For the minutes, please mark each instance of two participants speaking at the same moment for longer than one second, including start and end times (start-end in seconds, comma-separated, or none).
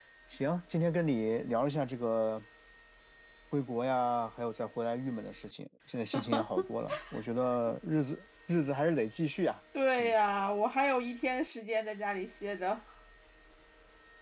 none